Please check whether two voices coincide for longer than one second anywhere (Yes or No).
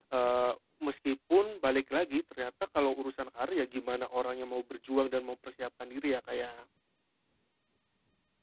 No